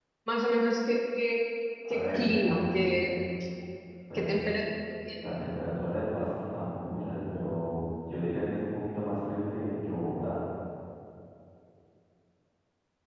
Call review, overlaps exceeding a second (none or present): present